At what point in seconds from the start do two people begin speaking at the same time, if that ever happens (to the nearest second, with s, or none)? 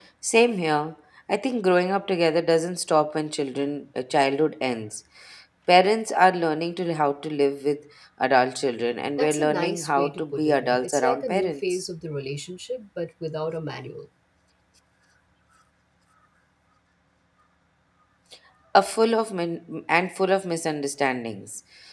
9 s